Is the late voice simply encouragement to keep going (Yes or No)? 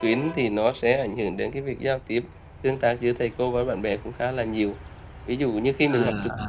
Yes